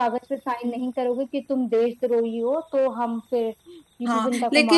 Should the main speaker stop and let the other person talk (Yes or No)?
Yes